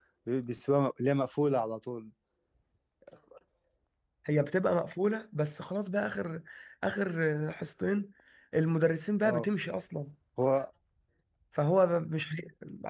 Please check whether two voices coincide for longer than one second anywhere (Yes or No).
No